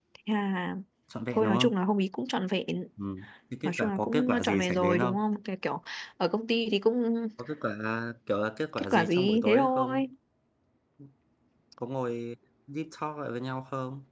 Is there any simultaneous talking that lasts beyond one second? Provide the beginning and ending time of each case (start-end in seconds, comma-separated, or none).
3.6-5.2, 8.8-10.0